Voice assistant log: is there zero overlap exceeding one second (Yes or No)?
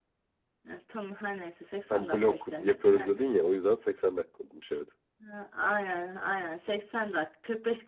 No